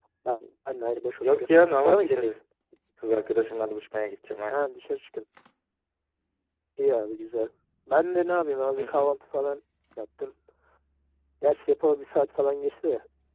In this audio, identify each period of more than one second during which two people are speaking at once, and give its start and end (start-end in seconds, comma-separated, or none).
1.1-2.4